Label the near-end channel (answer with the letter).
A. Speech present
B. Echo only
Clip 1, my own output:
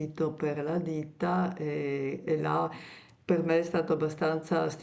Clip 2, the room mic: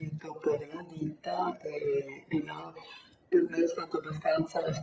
B